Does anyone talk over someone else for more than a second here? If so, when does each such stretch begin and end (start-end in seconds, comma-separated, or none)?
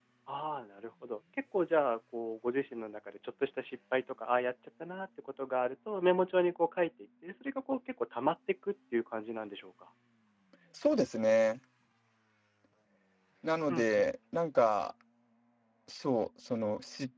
none